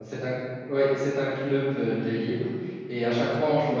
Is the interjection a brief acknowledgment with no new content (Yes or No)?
Yes